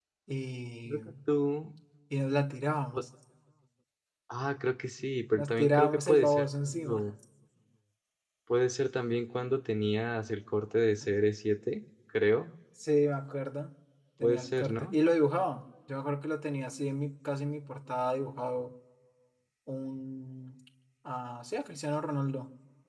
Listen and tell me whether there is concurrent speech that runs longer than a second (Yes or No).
Yes